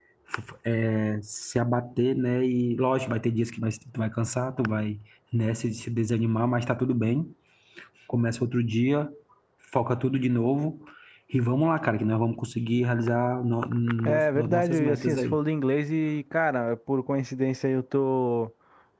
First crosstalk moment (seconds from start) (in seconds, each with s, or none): 14.0 s